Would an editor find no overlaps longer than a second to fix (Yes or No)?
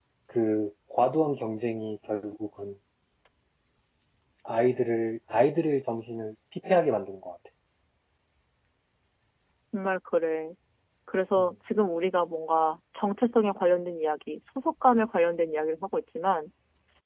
Yes